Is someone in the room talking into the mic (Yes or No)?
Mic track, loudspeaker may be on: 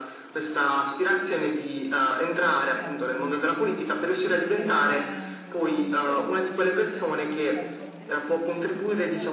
Yes